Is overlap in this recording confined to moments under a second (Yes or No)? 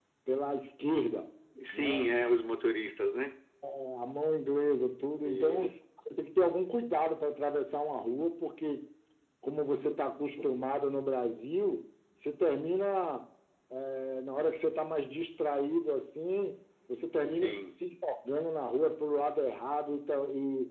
Yes